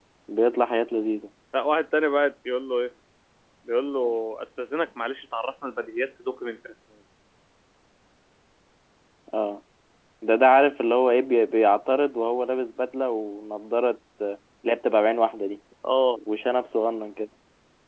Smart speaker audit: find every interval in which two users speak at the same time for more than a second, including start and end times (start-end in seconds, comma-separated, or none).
none